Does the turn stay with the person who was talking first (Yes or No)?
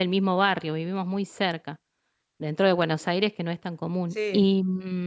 Yes